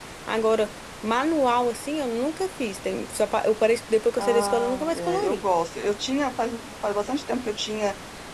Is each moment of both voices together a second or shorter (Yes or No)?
No